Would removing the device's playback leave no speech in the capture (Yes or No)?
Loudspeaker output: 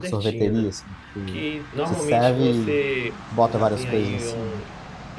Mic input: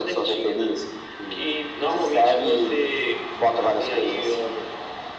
Yes